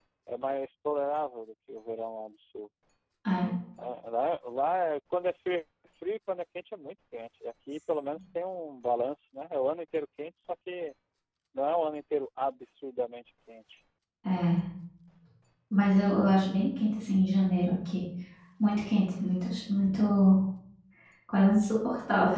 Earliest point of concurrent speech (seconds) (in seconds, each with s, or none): none